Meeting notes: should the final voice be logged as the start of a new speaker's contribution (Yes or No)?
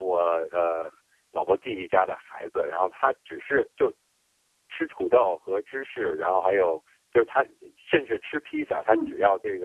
No